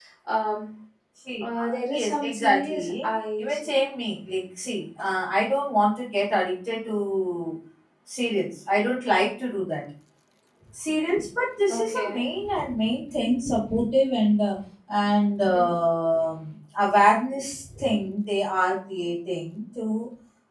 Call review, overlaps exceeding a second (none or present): present